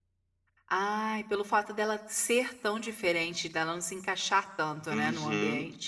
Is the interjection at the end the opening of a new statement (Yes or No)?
Yes